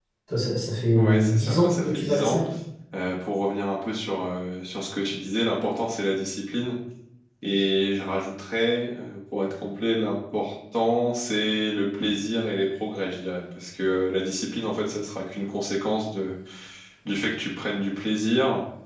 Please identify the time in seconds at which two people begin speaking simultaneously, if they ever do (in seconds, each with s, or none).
0.9 s